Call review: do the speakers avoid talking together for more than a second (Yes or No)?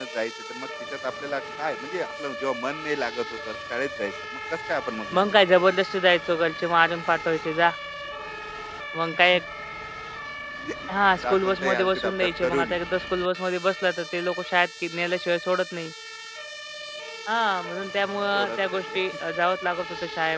No